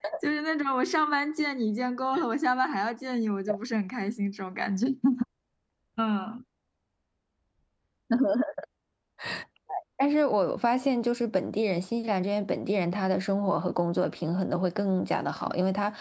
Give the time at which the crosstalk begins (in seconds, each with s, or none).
none